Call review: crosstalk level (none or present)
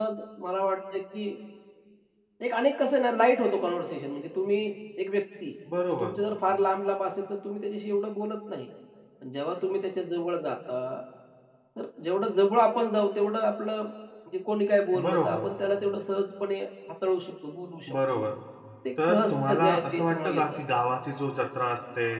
present